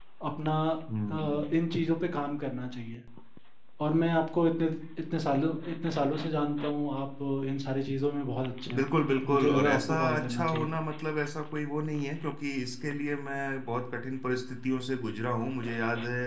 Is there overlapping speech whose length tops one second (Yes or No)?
Yes